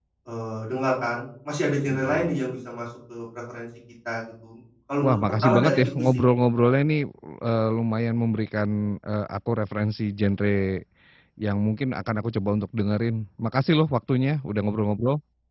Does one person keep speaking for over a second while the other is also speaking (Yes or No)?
Yes